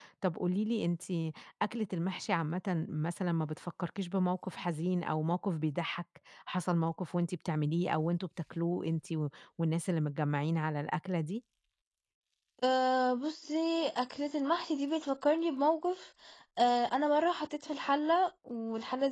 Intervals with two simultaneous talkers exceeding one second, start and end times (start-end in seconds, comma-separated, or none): none